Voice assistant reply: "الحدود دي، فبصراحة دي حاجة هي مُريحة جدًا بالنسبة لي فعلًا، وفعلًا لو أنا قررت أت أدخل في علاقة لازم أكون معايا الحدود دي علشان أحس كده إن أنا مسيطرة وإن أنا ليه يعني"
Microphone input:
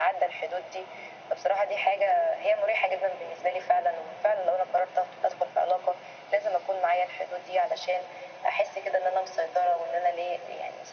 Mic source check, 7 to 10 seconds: echo only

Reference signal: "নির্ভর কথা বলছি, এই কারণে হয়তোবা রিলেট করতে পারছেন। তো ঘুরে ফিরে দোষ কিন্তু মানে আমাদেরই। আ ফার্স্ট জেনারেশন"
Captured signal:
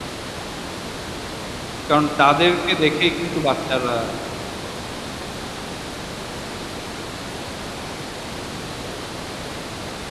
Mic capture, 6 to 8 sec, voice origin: neither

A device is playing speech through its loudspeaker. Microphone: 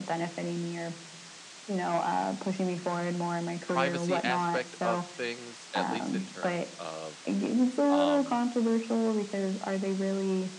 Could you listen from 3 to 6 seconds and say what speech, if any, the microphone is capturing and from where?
both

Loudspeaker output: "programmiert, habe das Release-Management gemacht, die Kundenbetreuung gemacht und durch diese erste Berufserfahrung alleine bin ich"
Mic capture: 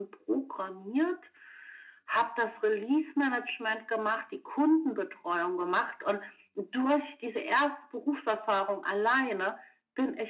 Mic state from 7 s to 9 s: echo only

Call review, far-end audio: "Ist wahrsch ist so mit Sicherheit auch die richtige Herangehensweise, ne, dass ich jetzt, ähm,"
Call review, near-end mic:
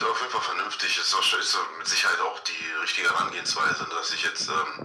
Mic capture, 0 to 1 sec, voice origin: echo only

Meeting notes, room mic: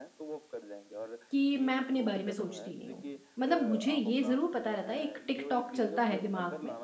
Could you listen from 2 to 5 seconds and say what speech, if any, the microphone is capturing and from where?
both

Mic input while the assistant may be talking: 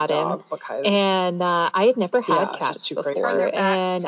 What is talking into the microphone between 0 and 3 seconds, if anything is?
echo only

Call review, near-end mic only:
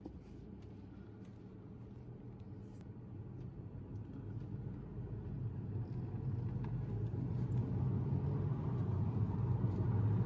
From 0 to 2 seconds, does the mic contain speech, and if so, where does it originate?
neither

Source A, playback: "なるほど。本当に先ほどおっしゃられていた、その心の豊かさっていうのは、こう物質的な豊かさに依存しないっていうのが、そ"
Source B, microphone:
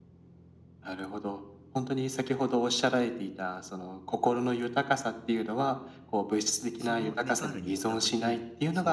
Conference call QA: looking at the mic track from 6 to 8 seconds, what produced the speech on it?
both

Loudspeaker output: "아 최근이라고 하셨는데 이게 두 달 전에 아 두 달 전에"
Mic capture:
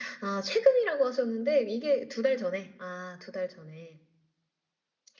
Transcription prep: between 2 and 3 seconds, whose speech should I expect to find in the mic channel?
echo only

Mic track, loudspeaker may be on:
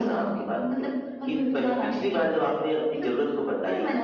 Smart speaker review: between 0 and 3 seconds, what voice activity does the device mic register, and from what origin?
echo only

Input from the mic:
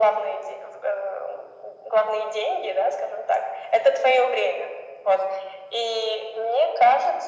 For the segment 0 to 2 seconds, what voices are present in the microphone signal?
echo only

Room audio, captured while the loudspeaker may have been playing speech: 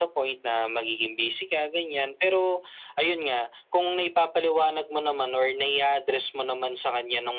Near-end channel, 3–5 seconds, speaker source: echo only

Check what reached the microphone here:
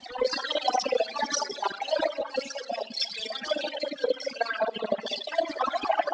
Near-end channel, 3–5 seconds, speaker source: echo only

